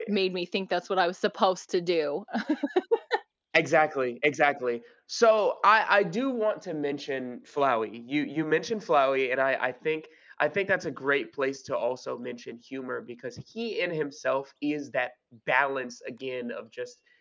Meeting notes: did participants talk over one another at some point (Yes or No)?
No